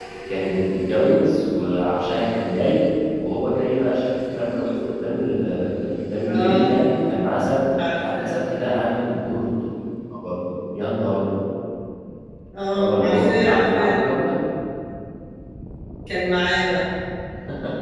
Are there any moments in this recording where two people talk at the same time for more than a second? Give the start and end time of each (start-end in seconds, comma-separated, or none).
12.8-14.0